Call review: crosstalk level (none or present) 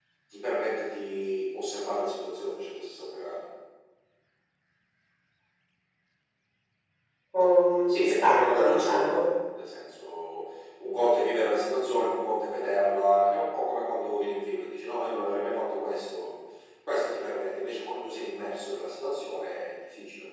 present